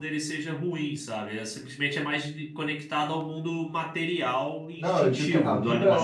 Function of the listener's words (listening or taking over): taking over